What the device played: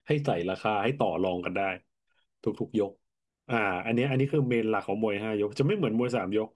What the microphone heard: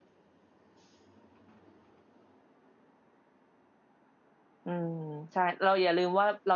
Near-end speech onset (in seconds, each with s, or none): 4.6 s